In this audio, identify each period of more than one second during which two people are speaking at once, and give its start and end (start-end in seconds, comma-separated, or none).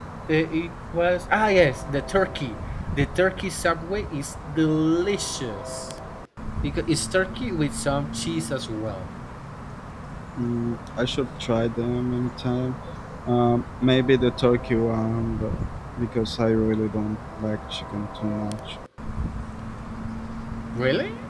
none